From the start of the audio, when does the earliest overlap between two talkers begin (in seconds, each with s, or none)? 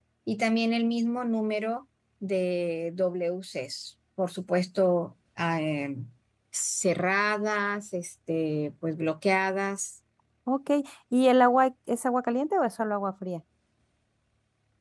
none